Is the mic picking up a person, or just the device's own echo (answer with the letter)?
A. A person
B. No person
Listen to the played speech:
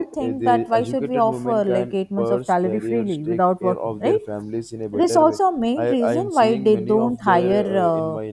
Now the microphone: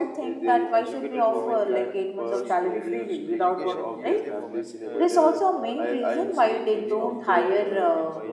A